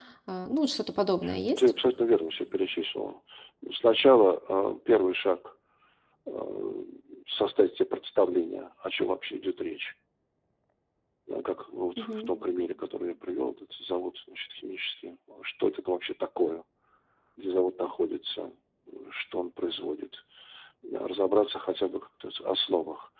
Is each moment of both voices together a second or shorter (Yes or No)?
Yes